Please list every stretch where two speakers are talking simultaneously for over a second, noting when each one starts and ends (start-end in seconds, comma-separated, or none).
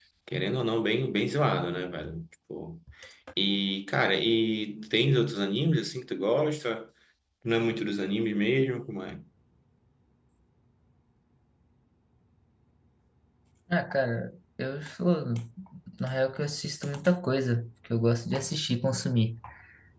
none